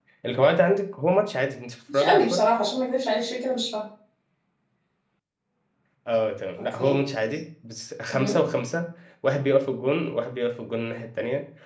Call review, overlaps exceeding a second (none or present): none